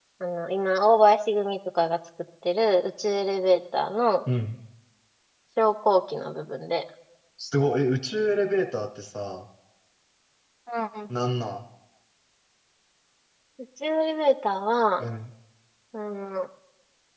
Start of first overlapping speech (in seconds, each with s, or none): none